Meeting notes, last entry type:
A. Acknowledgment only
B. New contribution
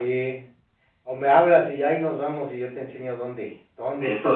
B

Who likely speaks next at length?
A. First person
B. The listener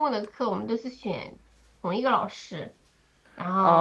B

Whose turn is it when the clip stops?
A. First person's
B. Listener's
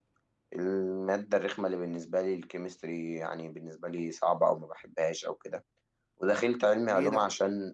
A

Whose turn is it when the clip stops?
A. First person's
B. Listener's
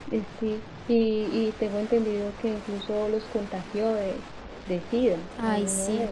B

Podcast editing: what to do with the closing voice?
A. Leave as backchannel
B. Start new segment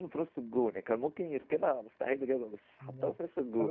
B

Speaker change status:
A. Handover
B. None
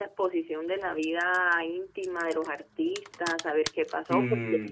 B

